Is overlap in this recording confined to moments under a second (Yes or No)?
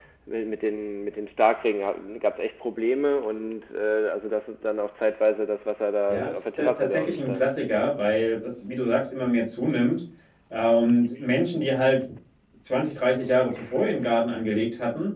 No